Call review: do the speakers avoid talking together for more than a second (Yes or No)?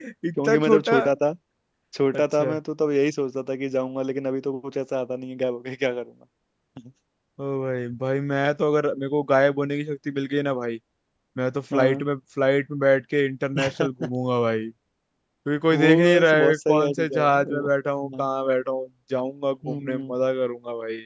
No